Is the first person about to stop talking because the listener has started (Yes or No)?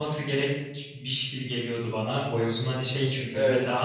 No